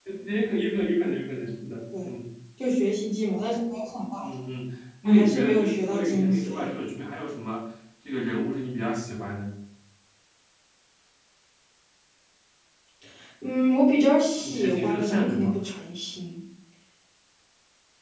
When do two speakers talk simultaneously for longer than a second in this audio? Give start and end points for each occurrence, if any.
5.1-6.7, 14.4-15.6

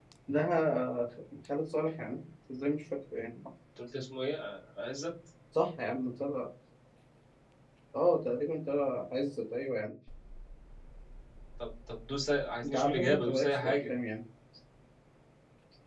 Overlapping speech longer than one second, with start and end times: 12.6-13.9

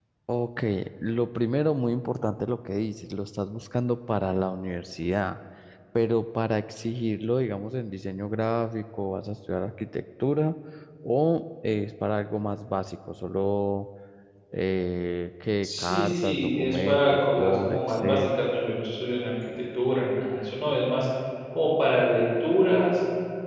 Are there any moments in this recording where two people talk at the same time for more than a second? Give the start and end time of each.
15.6-18.4

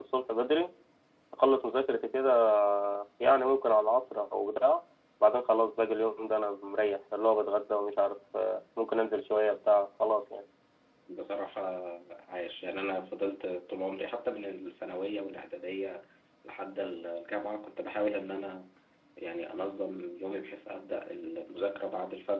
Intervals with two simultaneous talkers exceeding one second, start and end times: none

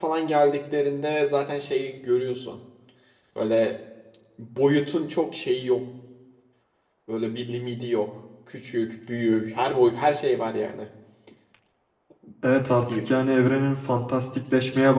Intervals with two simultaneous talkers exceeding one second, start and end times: none

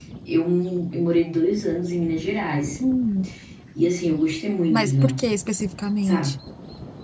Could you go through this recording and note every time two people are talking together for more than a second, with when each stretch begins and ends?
none

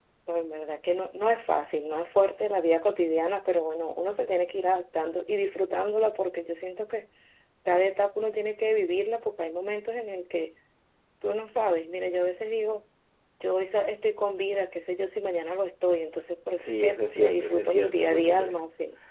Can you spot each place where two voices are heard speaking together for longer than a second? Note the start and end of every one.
16.6-18.5

